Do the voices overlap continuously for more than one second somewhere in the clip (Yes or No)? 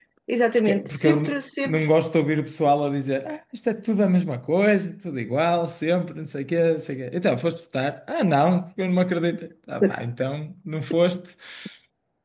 Yes